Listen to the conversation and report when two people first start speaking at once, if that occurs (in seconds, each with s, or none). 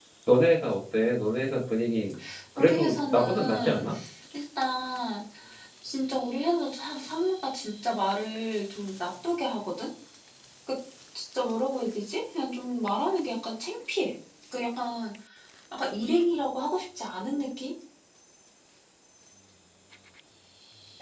2.6 s